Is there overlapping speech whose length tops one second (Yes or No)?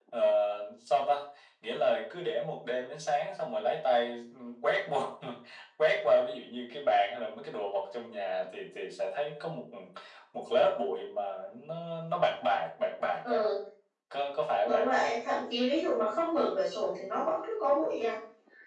No